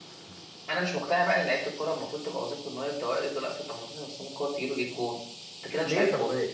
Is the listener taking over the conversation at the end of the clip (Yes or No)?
Yes